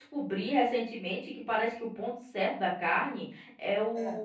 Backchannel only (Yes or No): Yes